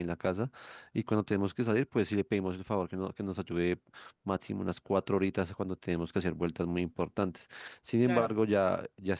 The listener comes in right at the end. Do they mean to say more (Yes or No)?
No